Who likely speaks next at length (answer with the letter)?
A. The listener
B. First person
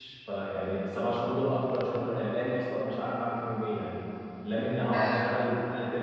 B